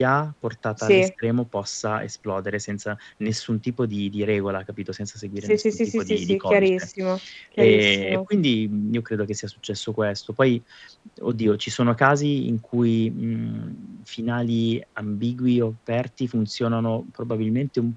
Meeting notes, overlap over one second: present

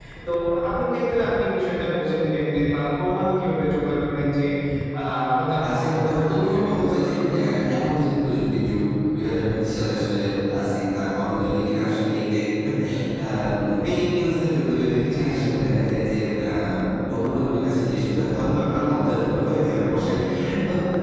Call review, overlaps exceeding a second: present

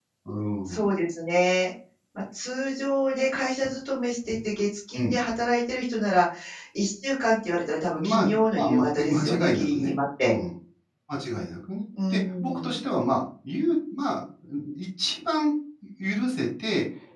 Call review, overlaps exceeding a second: present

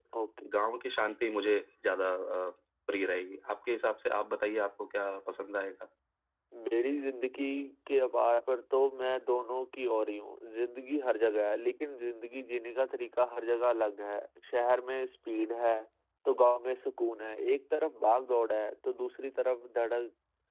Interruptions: none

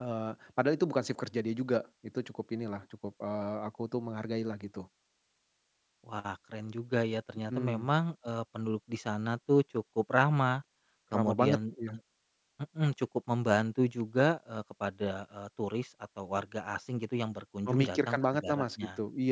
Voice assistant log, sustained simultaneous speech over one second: present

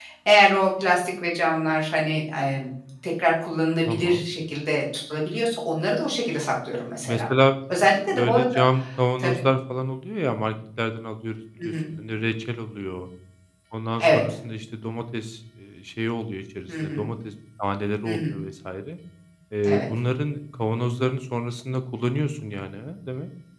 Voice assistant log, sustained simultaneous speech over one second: none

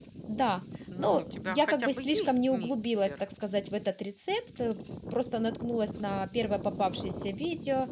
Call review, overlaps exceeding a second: present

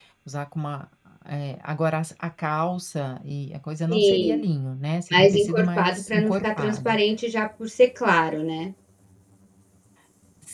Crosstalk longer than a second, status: present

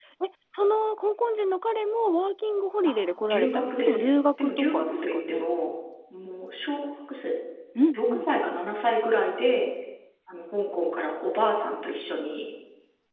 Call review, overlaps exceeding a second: present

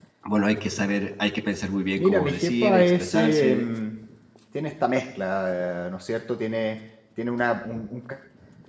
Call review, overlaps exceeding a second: present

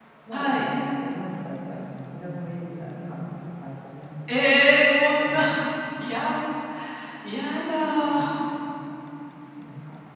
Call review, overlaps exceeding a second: none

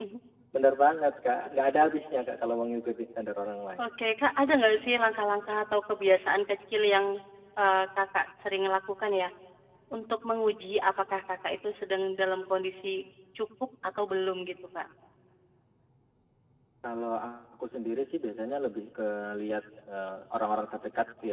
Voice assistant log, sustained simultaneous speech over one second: none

